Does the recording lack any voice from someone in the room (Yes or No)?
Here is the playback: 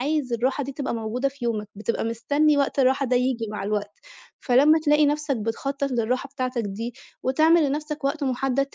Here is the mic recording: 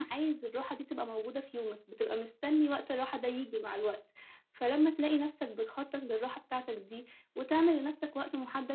Yes